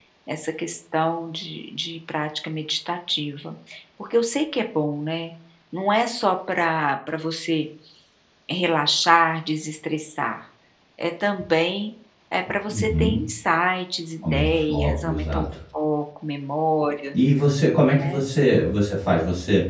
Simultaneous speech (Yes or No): Yes